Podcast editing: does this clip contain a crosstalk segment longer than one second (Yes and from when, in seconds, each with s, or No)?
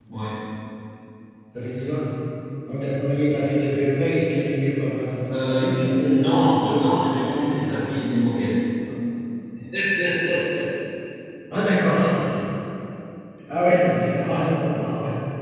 Yes, from 5.3 s